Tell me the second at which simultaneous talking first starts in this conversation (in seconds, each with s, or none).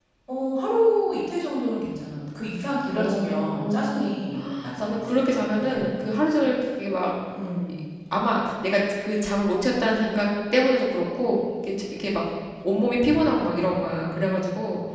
3.0 s